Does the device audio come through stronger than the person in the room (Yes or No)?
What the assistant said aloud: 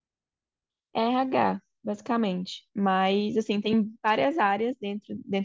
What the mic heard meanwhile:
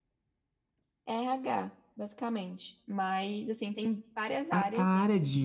No